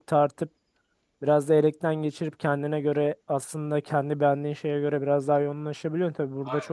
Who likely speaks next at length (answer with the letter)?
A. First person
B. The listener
A